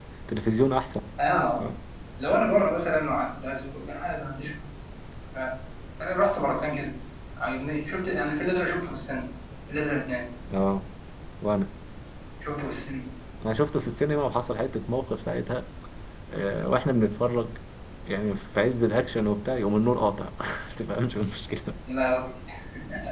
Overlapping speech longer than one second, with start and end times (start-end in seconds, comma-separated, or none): none